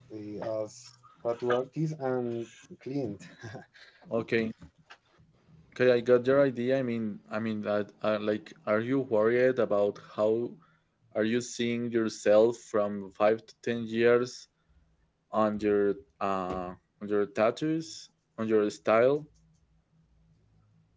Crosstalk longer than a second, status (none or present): none